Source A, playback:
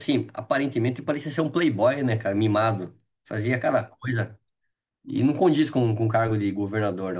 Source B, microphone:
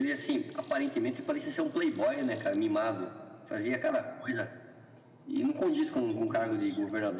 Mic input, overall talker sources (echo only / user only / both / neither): both